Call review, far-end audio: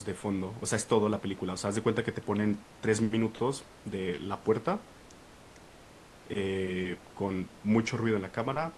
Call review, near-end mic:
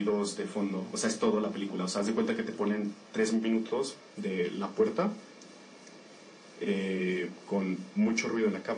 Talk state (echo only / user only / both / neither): echo only